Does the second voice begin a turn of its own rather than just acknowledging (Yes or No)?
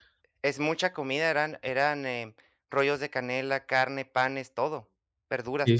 Yes